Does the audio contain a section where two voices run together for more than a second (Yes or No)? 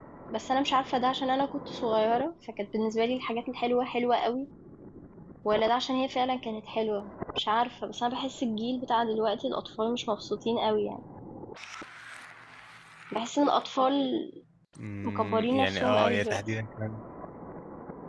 Yes